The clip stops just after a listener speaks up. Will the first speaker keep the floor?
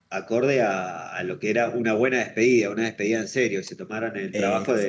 Yes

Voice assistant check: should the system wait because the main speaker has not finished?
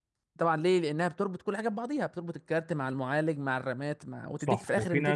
No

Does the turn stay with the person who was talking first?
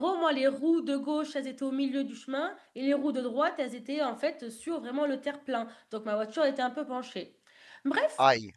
Yes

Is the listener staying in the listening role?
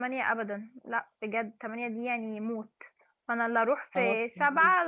Yes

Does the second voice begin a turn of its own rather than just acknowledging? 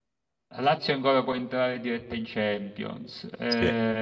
No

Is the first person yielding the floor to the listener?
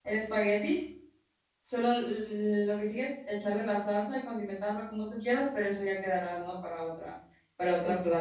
Yes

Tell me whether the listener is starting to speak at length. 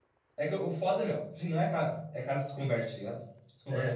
Yes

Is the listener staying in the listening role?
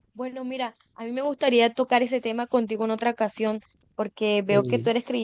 Yes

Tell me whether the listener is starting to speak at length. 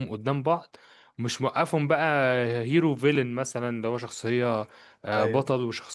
No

